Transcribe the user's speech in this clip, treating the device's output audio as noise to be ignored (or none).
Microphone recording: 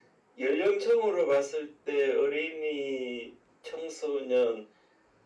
none